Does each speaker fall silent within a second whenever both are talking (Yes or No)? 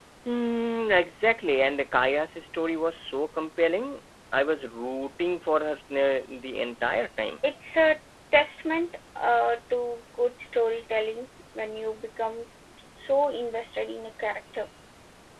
Yes